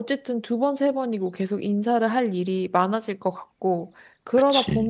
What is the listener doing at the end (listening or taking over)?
listening